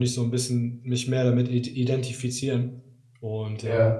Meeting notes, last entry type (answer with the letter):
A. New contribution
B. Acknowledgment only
B